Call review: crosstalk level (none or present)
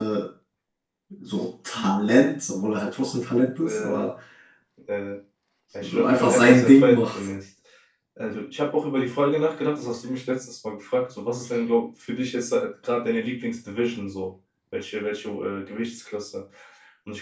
present